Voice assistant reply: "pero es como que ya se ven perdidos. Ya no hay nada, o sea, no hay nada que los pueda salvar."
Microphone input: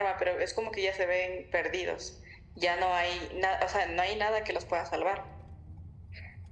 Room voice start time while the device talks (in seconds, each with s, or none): none